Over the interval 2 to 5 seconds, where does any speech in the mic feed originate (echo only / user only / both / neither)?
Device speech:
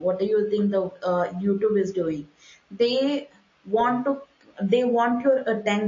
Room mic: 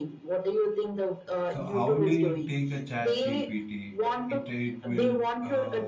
both